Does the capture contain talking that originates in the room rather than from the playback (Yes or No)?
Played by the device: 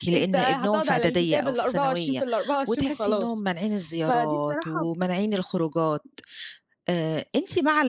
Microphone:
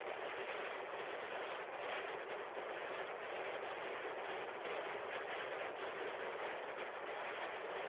No